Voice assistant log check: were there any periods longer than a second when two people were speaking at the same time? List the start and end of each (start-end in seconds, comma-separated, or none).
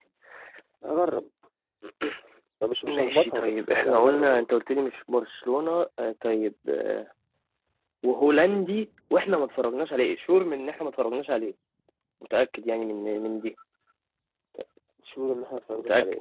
2.9-4.5